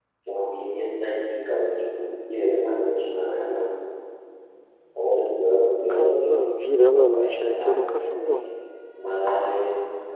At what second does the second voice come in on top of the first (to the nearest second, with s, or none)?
6 s